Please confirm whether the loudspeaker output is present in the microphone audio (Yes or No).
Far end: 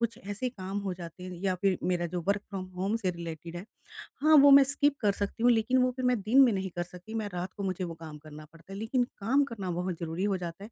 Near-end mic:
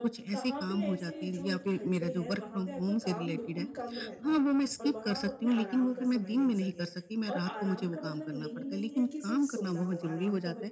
Yes